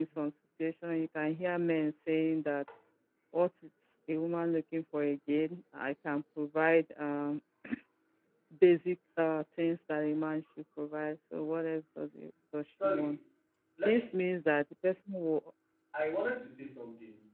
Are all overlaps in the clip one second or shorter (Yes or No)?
Yes